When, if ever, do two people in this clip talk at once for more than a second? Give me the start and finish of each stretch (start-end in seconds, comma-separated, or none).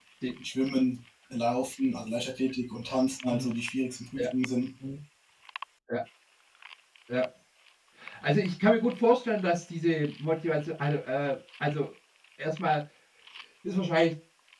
none